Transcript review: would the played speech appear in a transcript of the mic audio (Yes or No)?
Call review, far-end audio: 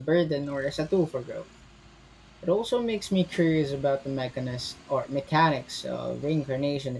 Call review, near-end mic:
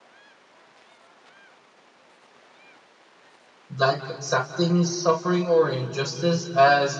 No